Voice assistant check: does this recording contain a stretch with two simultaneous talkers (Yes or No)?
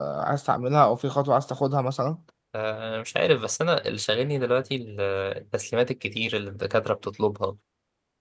No